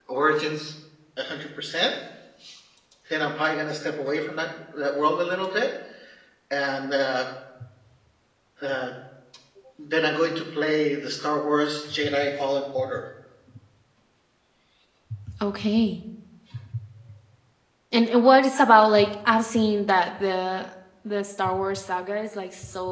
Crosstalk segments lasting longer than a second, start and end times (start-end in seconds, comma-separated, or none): none